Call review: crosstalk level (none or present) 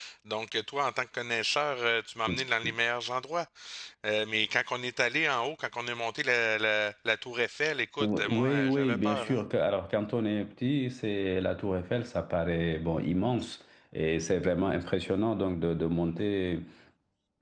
present